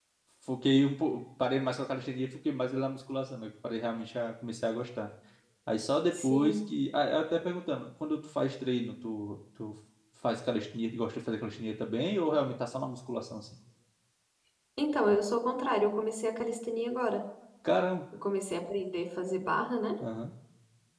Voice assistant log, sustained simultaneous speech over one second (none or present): none